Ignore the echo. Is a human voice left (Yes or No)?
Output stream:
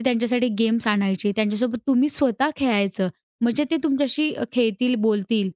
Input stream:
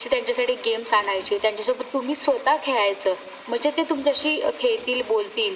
No